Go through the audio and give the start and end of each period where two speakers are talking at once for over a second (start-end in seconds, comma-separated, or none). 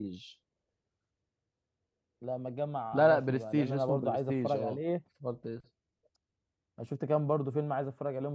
2.9-4.8